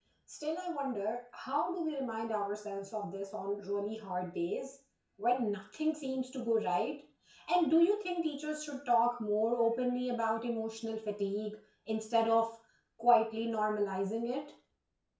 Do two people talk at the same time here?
No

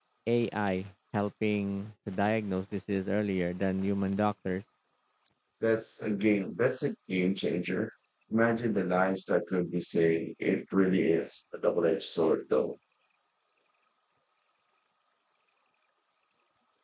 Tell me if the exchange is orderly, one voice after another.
Yes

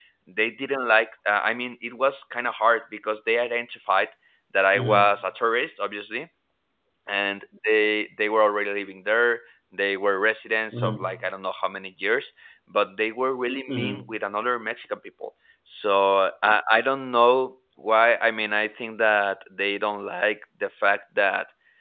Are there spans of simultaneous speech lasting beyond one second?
No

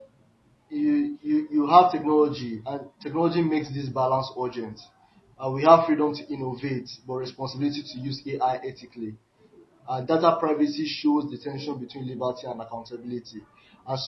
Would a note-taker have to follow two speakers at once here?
No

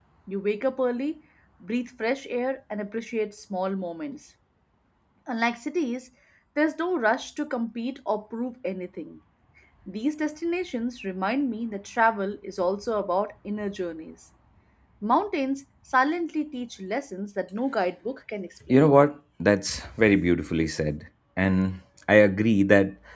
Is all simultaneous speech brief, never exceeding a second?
Yes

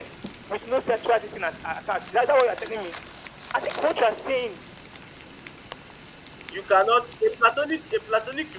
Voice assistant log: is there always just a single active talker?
Yes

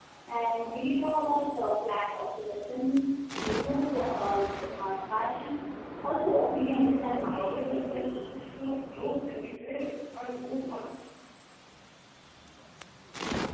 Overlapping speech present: Yes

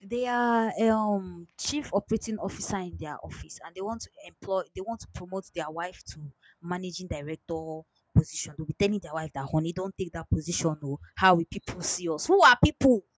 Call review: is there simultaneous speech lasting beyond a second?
No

